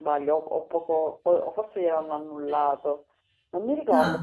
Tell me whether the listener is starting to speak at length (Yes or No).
No